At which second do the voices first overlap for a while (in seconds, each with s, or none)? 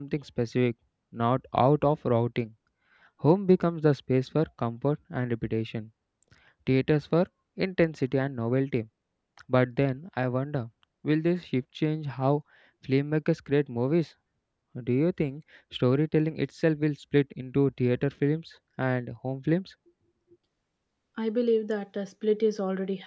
none